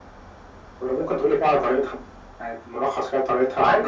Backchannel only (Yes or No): No